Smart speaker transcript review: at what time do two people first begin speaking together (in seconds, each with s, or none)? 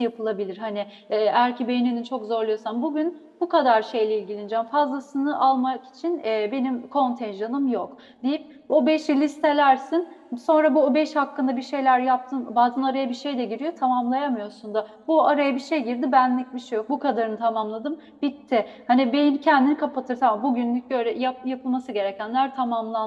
none